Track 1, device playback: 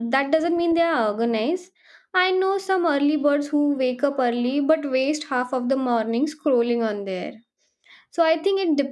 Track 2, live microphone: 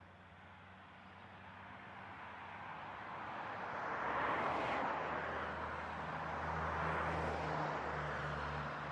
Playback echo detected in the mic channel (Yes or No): No